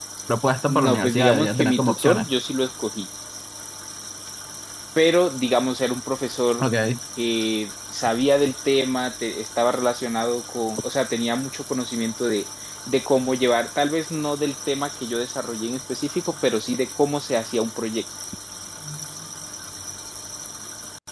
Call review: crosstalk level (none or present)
present